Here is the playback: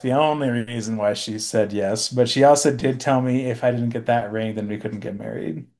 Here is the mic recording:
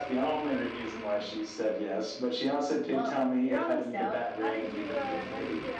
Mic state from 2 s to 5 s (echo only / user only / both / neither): both